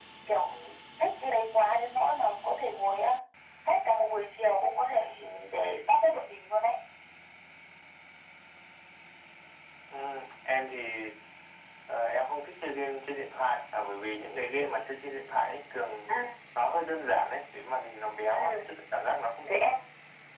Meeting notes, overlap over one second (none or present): none